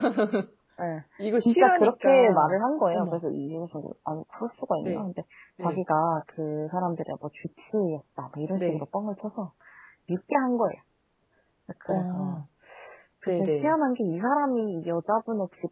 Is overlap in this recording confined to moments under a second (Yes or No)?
No